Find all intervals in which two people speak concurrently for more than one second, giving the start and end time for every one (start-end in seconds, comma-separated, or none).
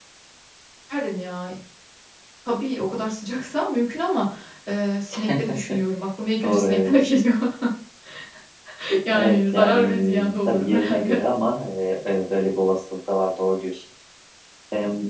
9.1-11.2